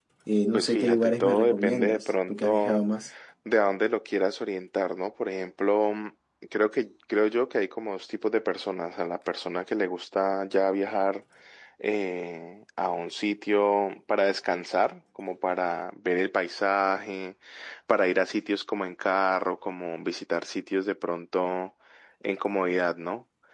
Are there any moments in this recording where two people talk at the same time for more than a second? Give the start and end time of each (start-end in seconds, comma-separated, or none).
0.5-2.8